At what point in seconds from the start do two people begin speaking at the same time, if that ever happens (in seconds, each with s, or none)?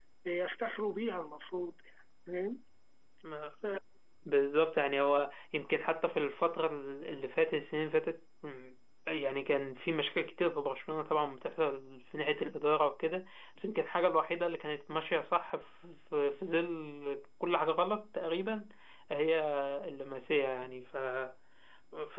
none